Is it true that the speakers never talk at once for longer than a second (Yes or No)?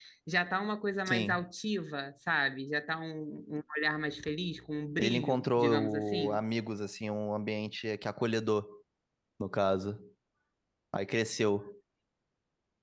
No